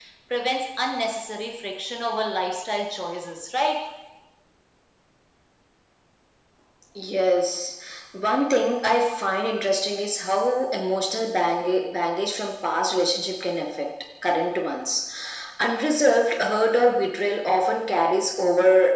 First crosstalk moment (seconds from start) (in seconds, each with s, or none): none